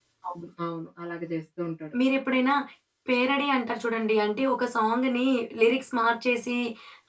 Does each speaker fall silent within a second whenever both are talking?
Yes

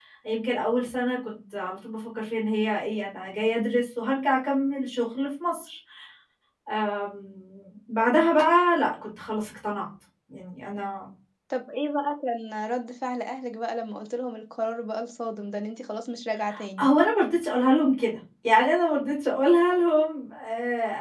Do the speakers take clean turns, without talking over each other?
Yes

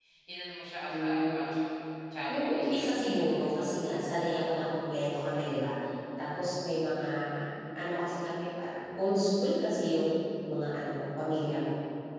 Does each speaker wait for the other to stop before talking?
No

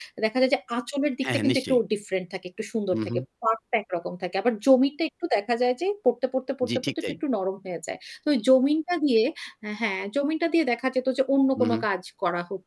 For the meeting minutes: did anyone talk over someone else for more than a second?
No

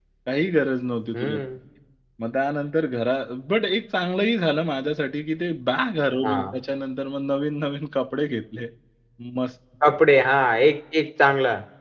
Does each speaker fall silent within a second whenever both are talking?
Yes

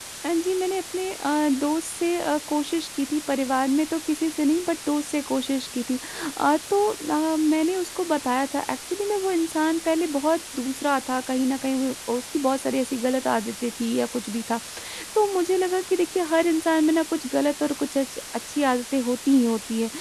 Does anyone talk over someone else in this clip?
No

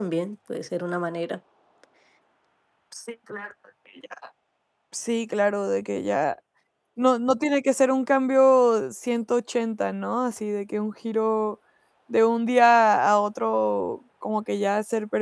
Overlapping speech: No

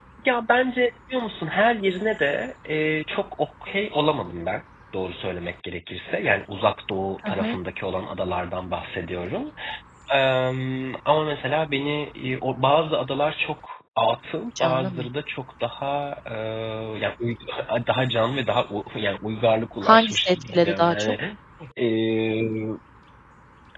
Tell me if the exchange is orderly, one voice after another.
No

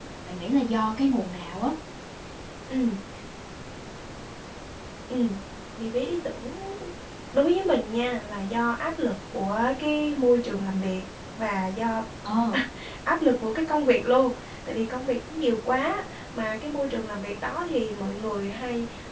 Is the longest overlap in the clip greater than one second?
No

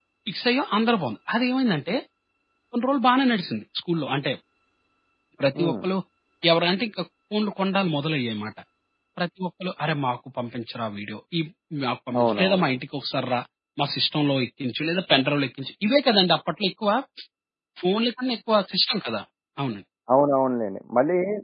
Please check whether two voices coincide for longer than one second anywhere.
No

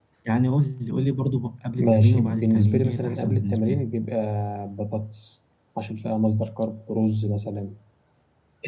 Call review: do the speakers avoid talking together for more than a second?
No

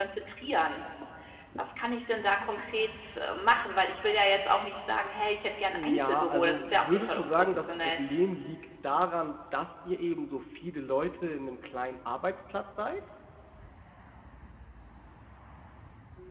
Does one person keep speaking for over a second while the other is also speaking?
Yes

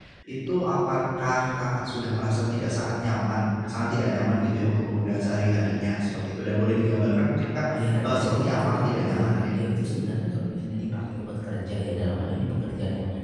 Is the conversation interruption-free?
No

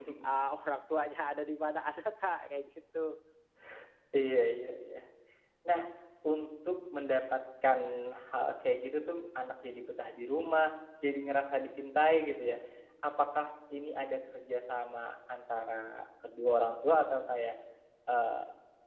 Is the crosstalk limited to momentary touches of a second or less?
Yes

